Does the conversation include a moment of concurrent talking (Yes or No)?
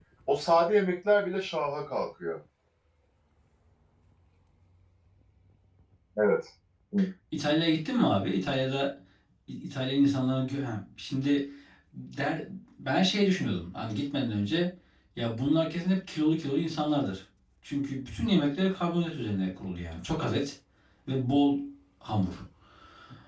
No